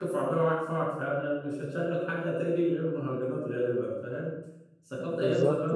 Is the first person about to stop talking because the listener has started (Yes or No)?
No